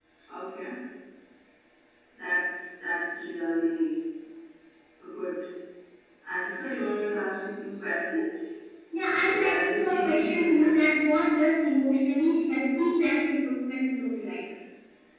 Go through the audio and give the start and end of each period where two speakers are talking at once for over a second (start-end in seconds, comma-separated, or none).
9.0-11.0